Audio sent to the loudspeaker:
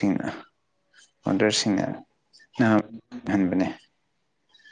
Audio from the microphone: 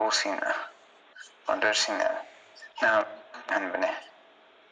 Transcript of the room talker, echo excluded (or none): none